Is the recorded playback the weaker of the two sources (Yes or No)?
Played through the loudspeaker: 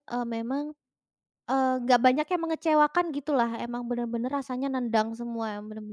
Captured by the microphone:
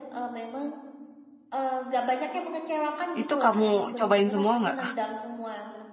Yes